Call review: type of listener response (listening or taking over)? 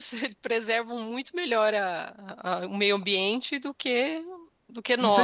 taking over